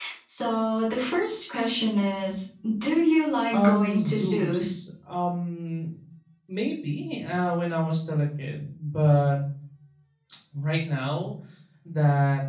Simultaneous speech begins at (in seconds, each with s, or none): 3.5 s